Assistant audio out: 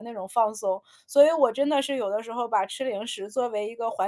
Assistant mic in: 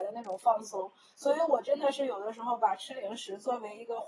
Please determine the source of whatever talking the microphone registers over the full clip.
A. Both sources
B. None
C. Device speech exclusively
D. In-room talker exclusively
C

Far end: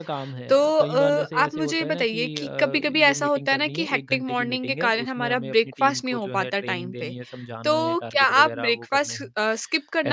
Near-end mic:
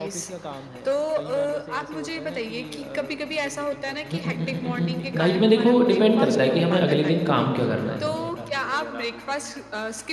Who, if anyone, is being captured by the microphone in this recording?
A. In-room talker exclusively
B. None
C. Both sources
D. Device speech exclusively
C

